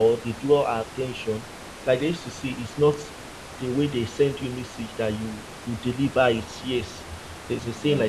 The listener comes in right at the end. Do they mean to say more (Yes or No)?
No